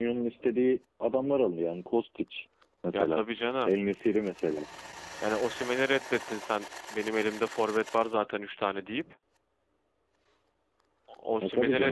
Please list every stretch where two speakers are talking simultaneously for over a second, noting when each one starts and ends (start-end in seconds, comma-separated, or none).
none